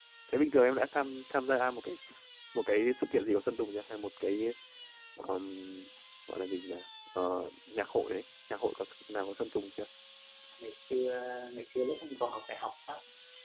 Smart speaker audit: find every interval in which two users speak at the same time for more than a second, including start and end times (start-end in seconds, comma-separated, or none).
none